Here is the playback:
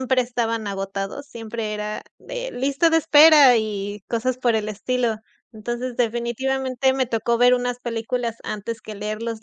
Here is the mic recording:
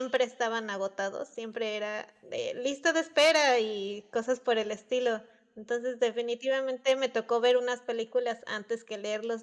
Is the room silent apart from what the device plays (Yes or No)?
Yes